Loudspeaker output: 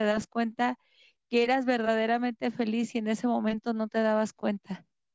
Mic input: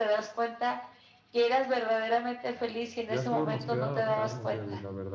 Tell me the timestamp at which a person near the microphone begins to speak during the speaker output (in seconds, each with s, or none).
3.1 s